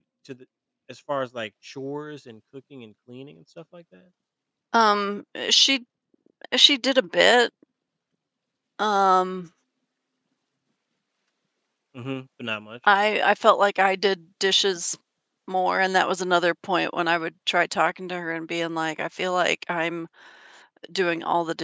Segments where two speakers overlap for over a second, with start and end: none

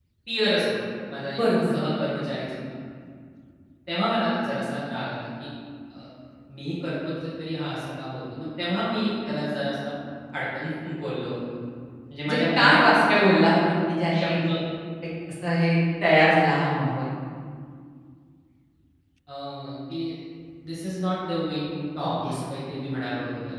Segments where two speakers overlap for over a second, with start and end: 12.3-13.7

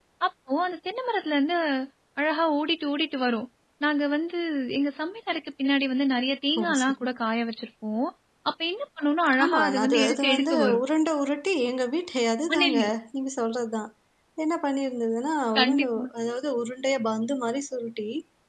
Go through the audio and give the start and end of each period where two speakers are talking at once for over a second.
9.4-10.8

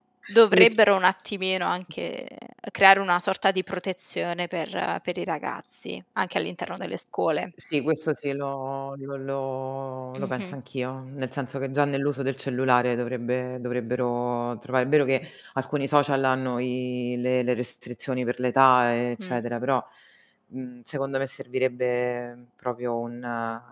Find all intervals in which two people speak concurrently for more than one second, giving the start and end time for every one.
none

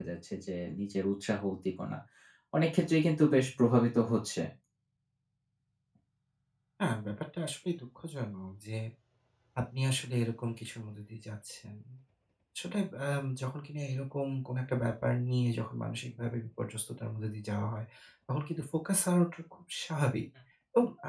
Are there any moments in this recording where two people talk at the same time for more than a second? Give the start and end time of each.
none

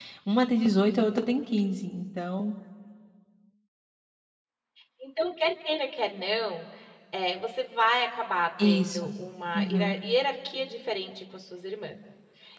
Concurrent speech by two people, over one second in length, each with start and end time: none

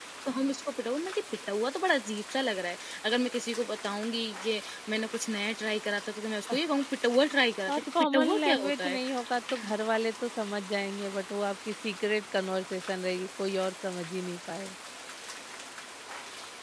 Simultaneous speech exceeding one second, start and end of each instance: 7.7-9.0

